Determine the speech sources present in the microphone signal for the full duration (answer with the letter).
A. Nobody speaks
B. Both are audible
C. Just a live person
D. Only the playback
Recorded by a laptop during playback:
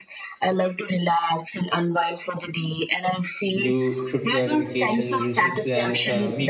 B